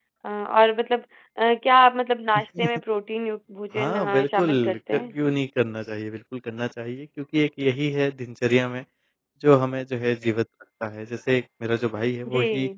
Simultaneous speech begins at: 3.8 s

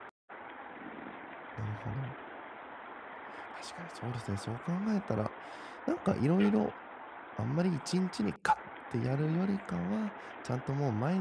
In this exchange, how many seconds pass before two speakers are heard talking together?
none

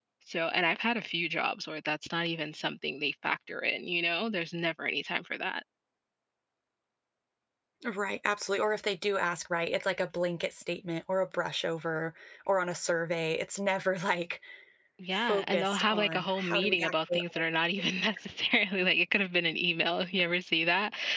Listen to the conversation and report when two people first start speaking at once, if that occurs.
15.3 s

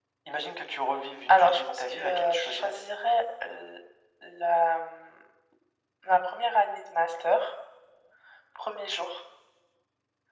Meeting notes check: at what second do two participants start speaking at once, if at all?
1.3 s

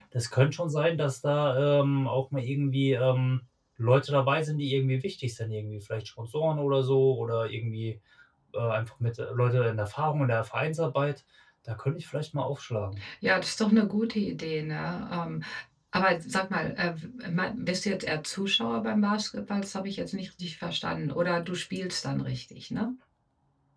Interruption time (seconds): none

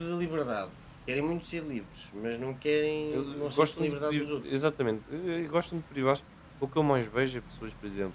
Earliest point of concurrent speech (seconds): 3.1 s

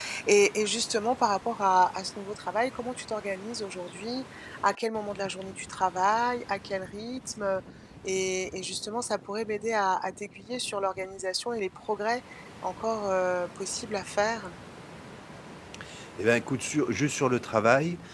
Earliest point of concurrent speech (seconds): none

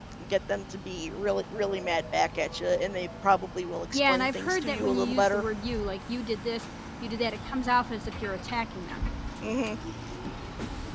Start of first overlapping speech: 3.9 s

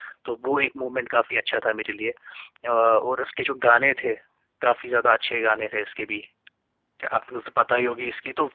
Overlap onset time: none

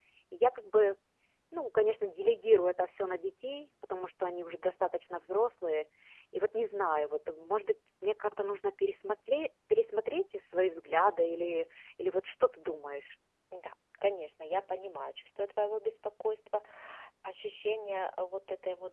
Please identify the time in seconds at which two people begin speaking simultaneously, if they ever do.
none

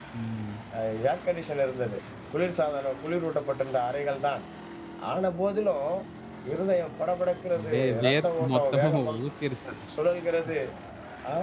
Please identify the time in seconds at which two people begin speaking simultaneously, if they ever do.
7.5 s

